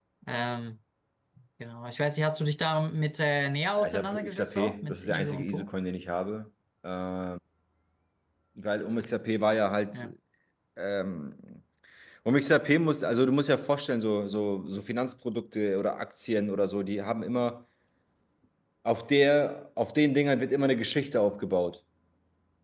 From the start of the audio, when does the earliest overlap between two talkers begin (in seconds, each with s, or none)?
3.8 s